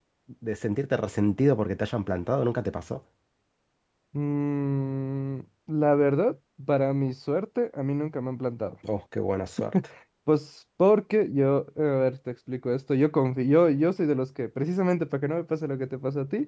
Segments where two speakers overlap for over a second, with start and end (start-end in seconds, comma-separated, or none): none